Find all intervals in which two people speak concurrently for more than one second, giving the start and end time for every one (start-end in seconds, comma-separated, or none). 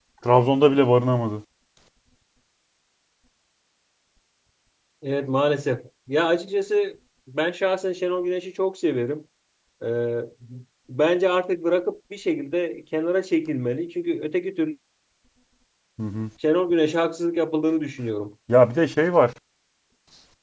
none